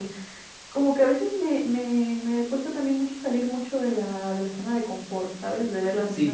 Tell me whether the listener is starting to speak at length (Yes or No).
Yes